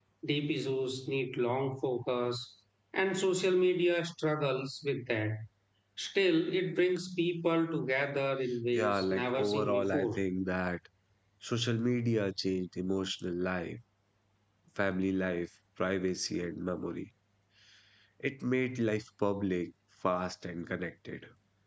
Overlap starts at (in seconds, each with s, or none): 8.7 s